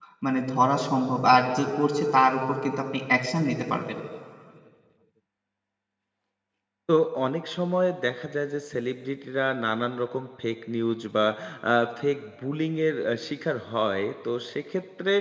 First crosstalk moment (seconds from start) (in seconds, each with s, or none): none